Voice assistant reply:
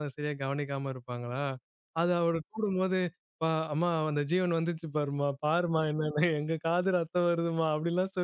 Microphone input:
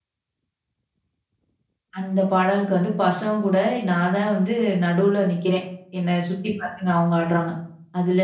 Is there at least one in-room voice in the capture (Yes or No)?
Yes